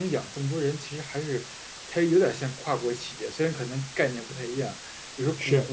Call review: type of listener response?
listening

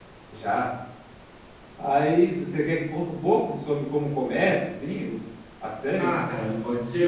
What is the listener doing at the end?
taking over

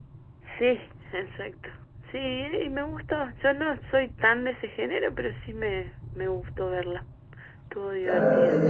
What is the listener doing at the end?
taking over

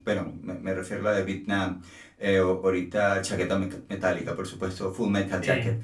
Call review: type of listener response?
listening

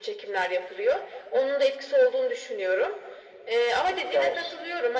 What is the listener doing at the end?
listening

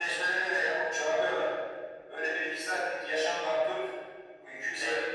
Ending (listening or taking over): listening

